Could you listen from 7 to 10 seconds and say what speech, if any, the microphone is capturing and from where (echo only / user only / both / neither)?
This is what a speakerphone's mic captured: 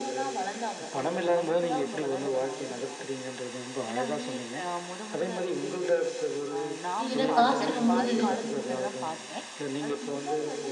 both